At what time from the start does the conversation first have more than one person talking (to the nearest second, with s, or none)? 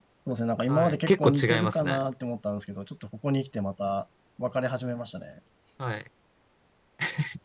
1 s